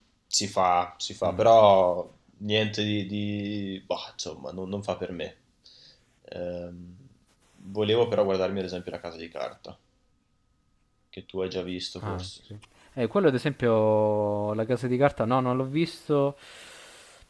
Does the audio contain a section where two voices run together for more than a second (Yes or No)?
No